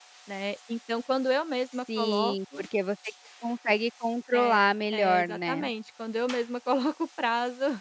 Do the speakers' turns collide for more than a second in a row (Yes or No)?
Yes